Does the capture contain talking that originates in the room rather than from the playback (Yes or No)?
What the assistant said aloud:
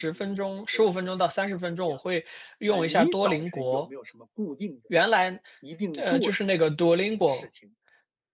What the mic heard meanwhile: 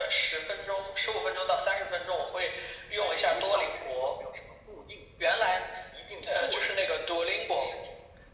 No